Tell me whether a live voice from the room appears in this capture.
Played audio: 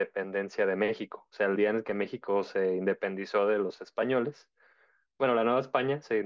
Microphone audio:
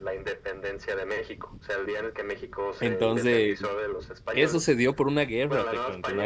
Yes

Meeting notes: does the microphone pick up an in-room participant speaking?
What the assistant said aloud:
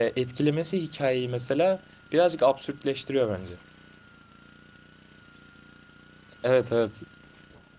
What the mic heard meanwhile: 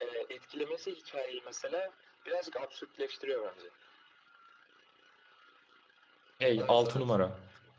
Yes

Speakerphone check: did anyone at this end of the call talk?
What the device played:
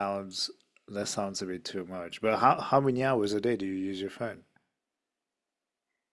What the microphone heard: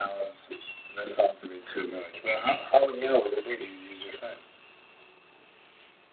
No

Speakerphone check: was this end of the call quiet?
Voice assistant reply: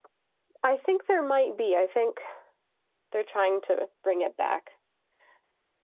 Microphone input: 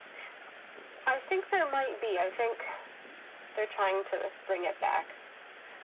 Yes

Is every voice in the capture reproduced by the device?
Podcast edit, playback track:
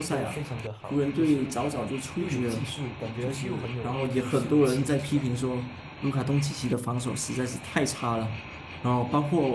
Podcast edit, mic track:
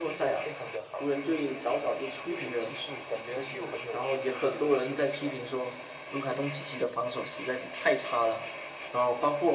Yes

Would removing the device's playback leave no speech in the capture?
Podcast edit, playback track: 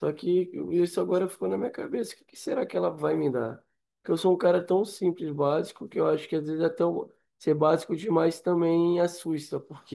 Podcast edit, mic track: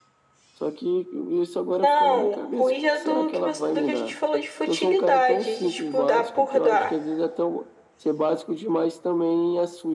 No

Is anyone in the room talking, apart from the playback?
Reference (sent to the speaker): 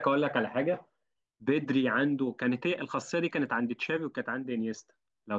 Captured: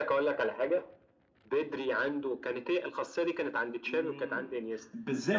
Yes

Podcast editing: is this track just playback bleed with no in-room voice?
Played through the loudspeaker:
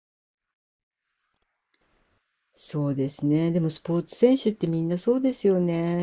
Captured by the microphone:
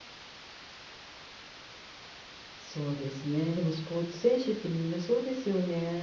Yes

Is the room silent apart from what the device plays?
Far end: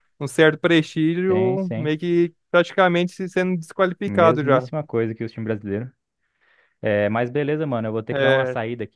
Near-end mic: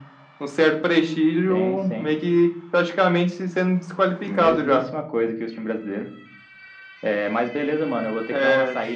Yes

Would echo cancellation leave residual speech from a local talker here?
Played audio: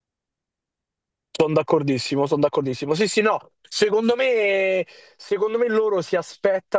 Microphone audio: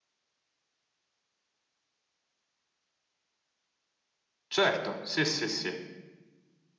Yes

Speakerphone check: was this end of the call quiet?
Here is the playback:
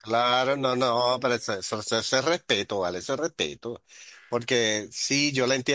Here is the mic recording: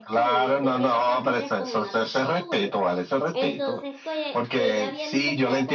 No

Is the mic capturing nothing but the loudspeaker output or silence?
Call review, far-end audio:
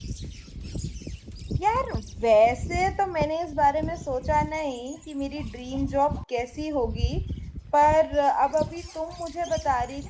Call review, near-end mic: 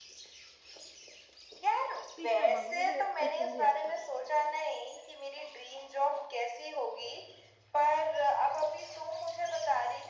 No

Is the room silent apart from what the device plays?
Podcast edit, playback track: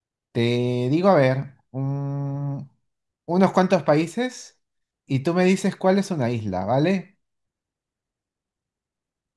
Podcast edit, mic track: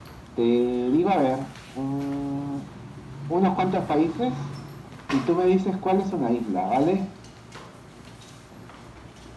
Yes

